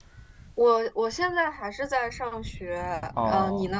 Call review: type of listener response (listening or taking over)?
taking over